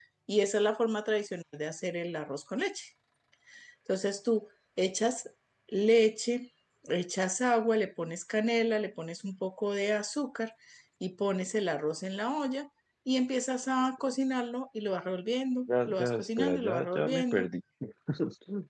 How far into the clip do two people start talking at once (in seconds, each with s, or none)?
15.7 s